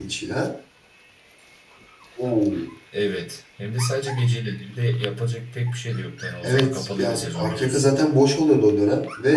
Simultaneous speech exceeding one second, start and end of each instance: 6.4-7.9

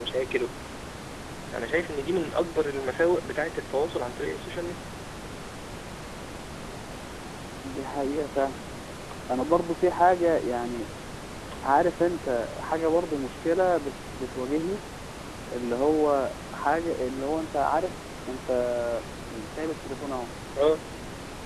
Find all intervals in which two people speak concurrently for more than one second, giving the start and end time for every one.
none

